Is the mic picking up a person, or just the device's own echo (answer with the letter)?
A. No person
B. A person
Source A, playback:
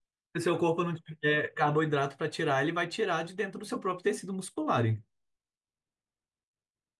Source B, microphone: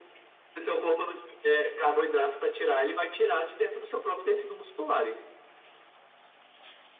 A